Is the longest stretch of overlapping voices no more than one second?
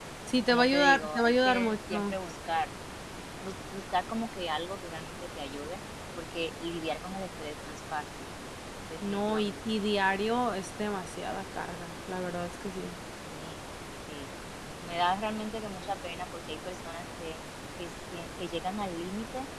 No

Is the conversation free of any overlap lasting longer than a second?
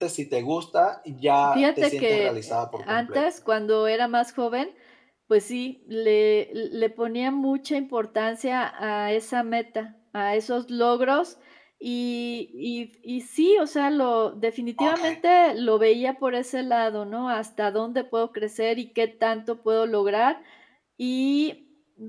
No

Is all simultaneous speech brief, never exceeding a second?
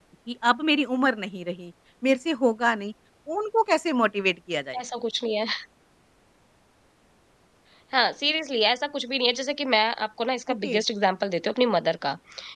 Yes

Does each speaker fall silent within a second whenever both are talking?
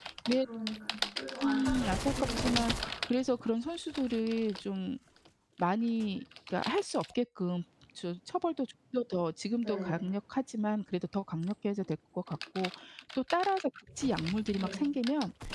No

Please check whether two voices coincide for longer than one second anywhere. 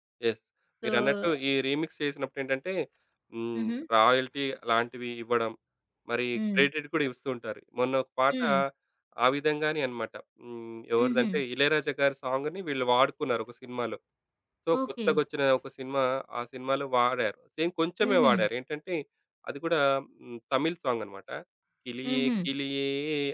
No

